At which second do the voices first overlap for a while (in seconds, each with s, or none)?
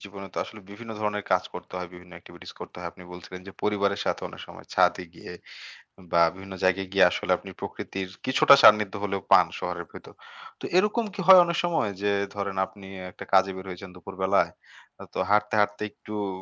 none